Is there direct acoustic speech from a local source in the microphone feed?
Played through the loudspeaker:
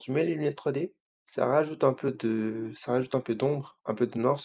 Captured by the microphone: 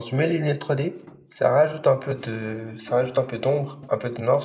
No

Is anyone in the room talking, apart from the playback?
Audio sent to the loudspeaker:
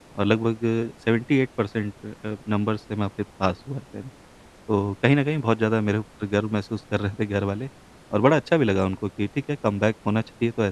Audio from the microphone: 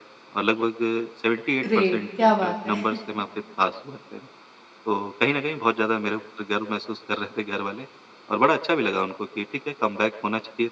Yes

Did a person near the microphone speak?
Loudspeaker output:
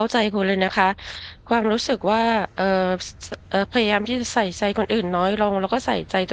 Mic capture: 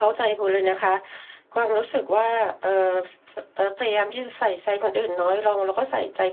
No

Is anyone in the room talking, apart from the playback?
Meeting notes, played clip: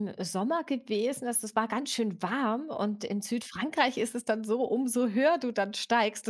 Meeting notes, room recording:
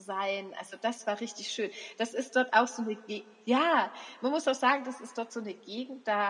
Yes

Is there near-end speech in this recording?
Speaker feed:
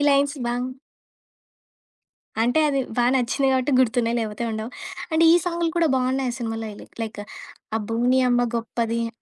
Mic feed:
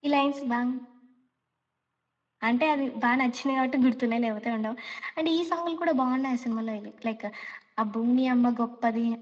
No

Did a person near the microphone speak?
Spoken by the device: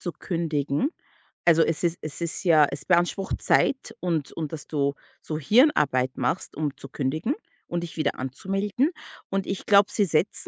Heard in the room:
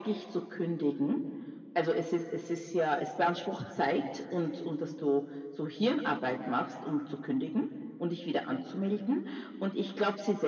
No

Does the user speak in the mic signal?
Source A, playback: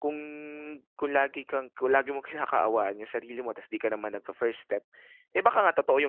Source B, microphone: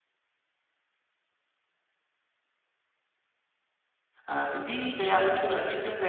Yes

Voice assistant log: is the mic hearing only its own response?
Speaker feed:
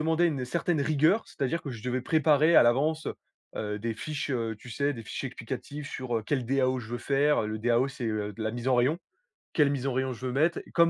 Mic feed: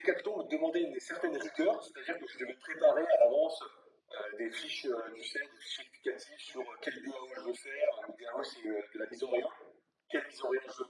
Yes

